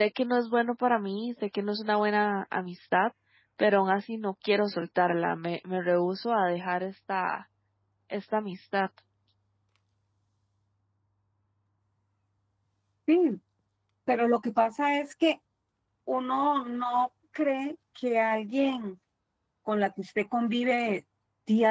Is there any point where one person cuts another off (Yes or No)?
No